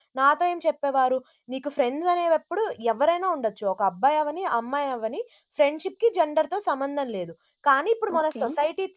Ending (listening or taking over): listening